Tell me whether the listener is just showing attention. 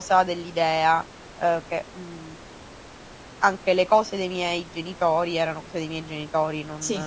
Yes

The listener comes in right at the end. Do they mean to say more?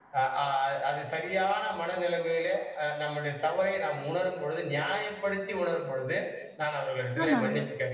No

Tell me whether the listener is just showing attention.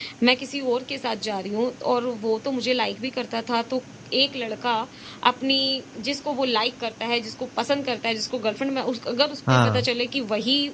Yes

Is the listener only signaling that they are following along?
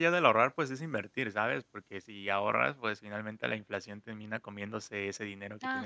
No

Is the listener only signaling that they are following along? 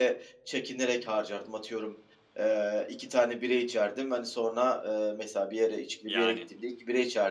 Yes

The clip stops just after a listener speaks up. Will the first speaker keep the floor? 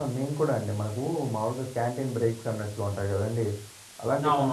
Yes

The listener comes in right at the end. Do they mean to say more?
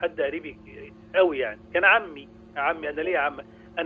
No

